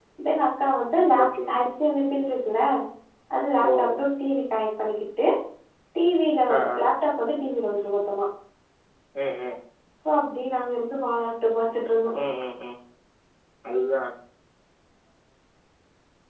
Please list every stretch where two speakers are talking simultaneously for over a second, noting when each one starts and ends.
none

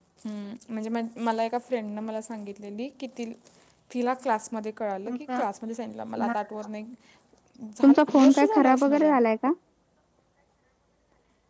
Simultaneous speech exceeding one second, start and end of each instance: 7.8-9.2

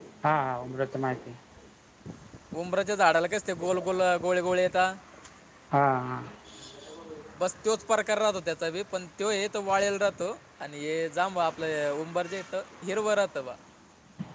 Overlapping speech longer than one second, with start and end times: none

